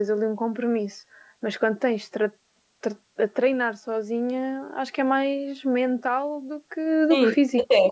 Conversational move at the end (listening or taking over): taking over